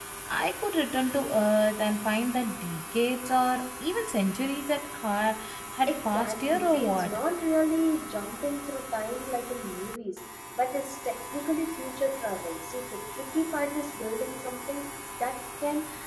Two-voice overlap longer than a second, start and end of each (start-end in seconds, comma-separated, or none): 5.9-7.1